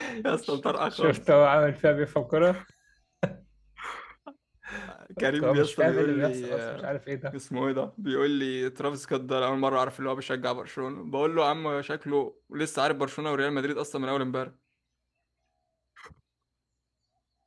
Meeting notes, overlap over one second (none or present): present